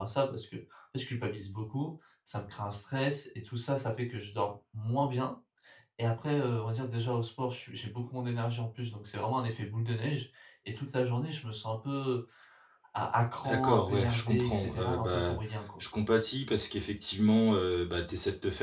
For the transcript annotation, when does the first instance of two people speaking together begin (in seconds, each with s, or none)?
13.4 s